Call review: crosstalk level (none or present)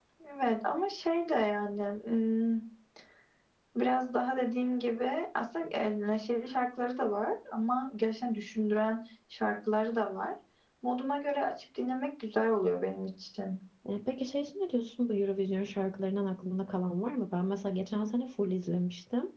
none